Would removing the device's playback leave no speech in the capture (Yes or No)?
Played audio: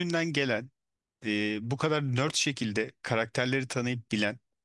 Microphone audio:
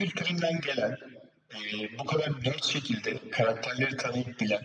Yes